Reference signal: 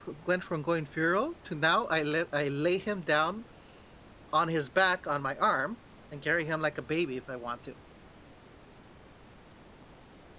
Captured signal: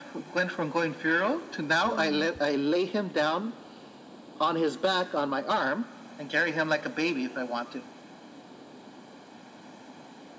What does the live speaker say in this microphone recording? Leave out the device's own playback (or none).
All right.